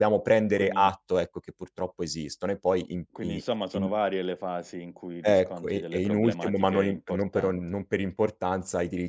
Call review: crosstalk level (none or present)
present